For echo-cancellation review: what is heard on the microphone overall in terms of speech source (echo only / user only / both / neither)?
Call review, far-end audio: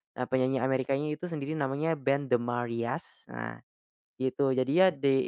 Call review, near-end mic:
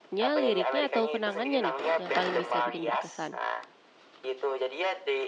both